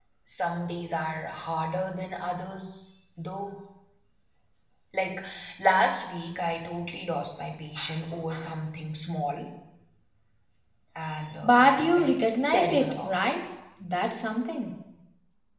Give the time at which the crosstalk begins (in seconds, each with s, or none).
11.4 s